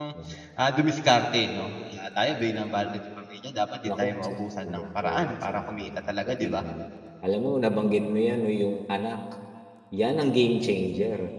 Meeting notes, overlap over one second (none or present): present